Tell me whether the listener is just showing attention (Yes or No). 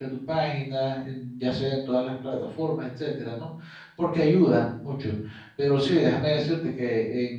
Yes